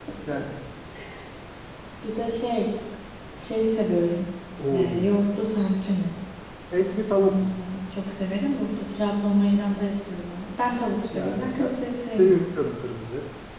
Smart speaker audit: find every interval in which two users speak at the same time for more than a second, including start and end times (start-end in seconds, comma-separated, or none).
11.2-12.4